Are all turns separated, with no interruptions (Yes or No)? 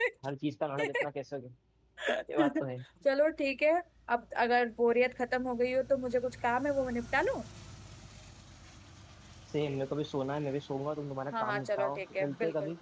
No